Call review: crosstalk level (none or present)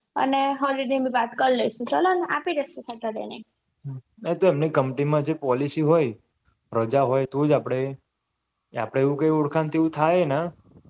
none